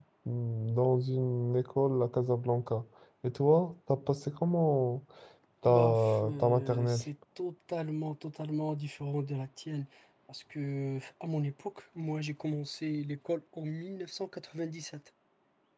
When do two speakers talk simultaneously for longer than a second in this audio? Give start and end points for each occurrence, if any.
5.7-7.0

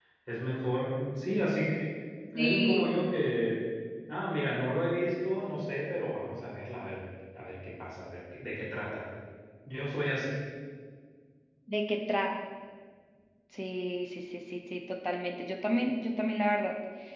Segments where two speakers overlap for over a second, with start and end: none

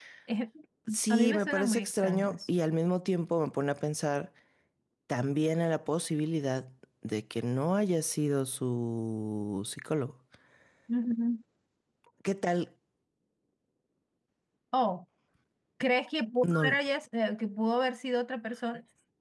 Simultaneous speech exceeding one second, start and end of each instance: 1.1-2.4

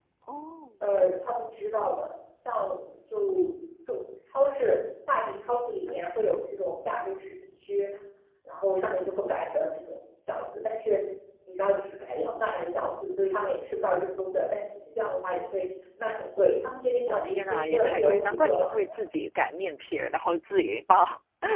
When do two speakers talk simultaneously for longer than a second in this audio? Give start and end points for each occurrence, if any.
17.1-18.8

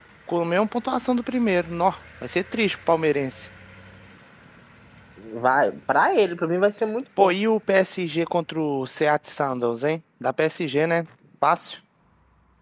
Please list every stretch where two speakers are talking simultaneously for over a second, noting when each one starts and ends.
none

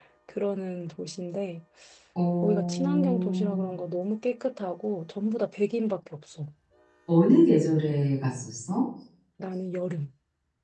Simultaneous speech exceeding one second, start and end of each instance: 2.4-3.7

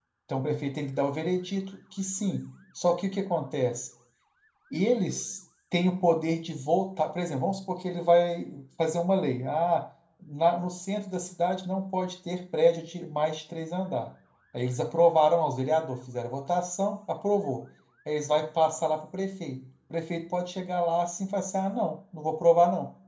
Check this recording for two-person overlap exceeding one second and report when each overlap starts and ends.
none

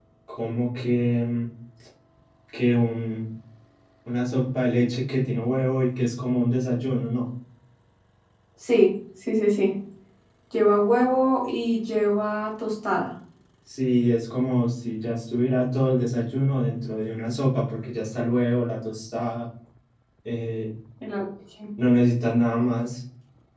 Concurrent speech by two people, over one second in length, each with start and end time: none

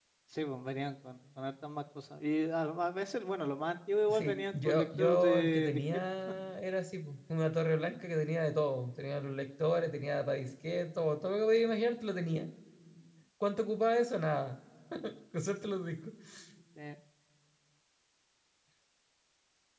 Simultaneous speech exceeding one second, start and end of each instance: 4.1-5.8

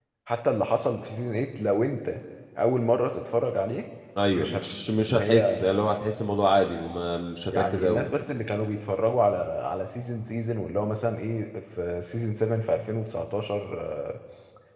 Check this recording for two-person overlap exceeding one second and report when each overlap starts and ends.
4.3-5.8

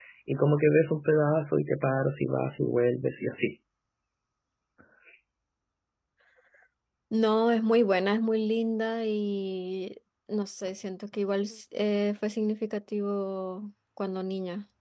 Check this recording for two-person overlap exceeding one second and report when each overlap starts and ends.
none

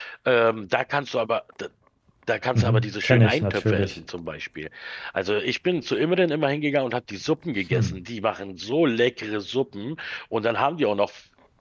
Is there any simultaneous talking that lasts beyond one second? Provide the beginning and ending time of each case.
2.5-4.0

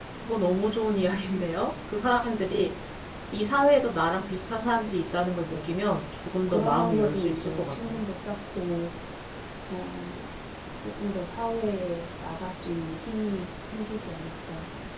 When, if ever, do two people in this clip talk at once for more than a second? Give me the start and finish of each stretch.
6.5-8.0

